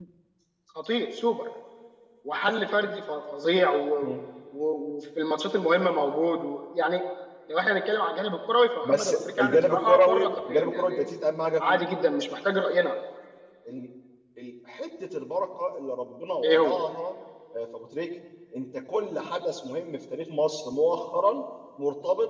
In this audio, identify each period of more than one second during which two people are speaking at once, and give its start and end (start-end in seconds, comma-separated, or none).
8.8-11.1